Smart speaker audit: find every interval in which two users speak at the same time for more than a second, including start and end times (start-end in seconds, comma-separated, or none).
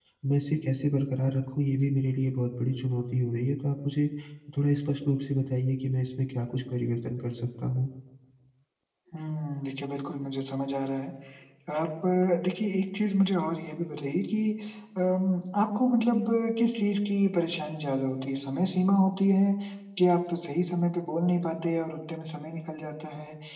none